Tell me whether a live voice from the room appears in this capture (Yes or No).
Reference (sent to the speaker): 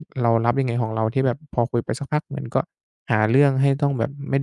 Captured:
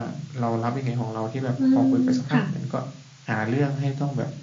Yes